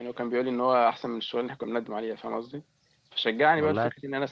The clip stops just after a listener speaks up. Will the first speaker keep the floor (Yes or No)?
Yes